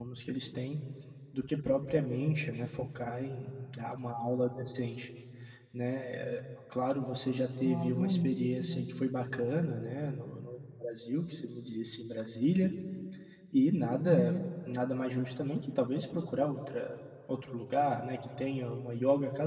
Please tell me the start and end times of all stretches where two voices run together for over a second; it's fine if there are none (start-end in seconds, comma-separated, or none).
7.6-8.8